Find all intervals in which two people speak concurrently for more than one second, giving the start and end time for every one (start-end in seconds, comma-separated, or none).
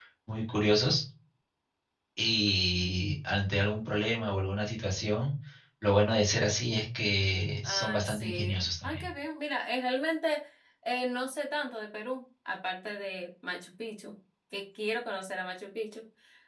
7.6-9.1